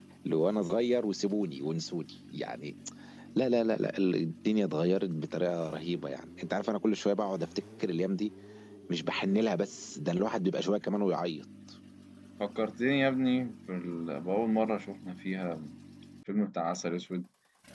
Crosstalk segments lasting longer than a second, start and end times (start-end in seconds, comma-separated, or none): none